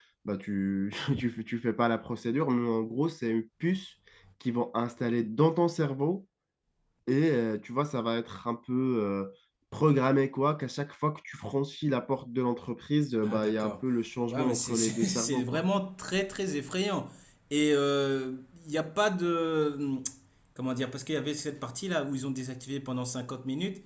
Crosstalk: present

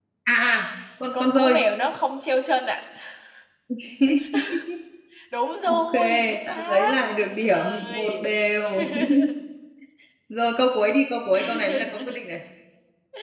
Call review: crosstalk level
present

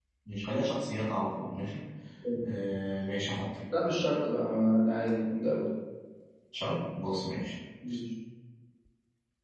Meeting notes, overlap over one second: none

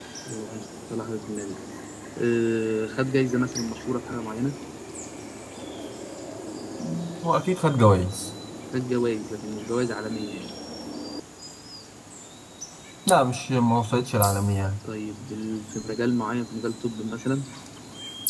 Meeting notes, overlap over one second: none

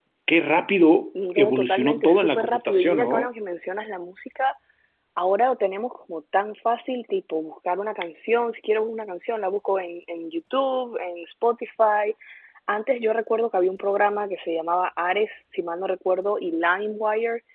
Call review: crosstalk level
present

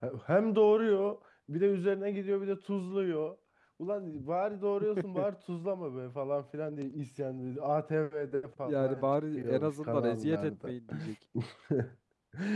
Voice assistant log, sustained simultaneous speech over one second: present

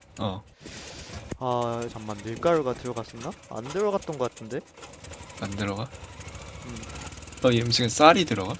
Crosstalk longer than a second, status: none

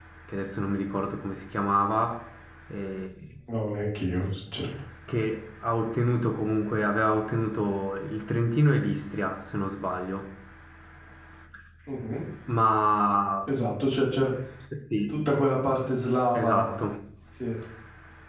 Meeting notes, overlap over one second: none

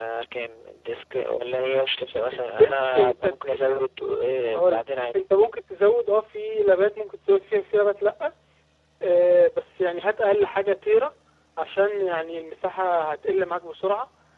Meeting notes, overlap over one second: present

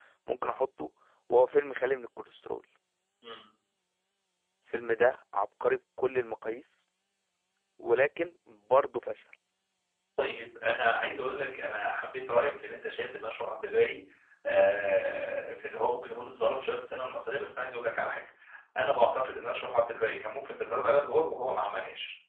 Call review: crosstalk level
none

